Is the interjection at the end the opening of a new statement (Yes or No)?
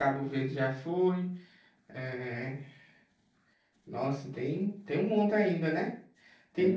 Yes